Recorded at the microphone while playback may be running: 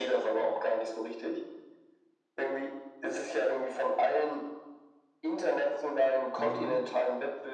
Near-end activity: present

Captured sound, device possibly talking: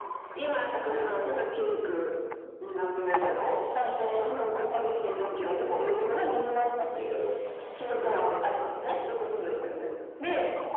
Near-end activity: none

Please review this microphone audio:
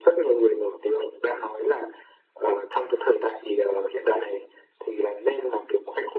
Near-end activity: none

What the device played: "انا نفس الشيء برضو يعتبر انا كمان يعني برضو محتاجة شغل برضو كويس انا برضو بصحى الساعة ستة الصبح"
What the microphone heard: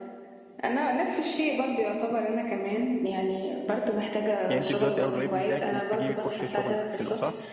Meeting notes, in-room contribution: present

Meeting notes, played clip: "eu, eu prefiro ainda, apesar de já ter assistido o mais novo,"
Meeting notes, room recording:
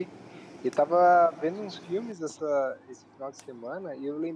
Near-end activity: present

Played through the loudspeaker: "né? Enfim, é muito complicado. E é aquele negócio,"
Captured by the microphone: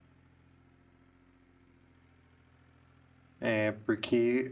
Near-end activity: present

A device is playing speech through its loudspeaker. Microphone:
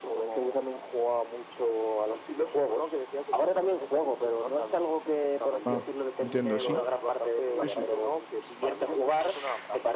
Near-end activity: present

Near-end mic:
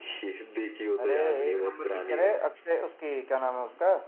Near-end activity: present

